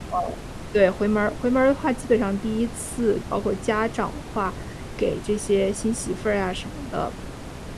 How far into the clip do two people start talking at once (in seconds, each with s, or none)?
none